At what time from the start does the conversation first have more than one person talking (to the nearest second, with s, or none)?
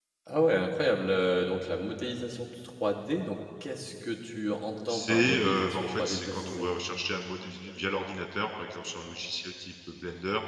5 s